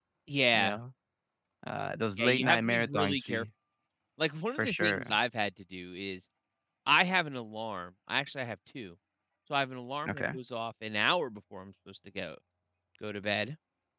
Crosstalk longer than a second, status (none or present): present